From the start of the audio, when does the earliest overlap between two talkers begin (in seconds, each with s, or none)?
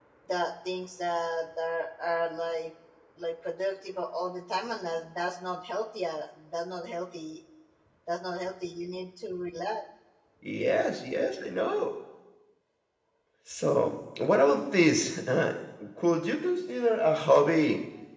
none